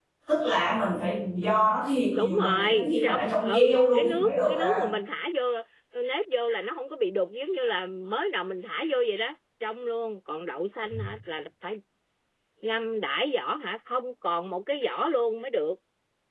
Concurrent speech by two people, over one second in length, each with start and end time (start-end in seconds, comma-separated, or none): 2.1-4.8